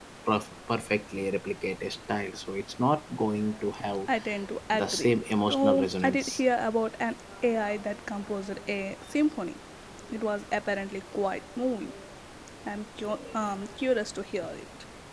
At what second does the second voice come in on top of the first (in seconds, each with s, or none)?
4.8 s